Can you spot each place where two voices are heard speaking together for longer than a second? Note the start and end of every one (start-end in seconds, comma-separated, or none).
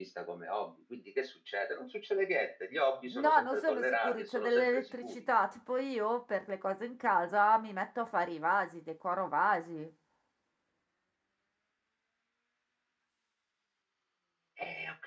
3.1-5.2